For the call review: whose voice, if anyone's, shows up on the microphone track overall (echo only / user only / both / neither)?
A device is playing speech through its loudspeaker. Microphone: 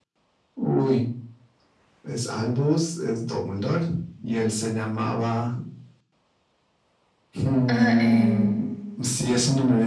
both